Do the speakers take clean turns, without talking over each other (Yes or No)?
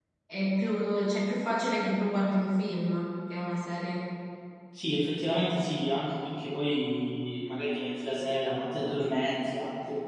Yes